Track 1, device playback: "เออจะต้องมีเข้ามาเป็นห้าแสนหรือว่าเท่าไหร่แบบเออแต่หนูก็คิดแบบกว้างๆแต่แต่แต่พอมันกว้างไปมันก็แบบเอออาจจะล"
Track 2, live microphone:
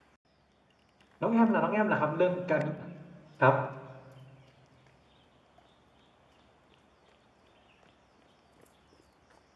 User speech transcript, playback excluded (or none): น้องแอมล่ะน้องแอมล่ะครับเรื่องการครับ